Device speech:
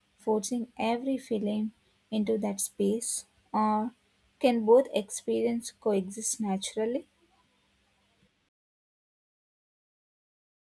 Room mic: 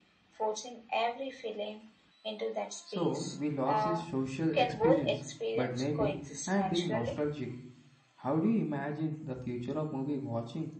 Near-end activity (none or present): present